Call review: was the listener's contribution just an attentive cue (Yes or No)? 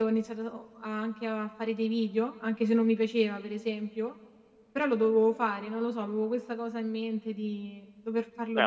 No